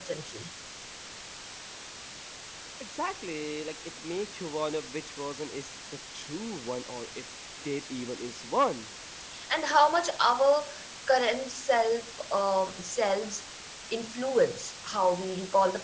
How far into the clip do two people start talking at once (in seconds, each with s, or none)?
none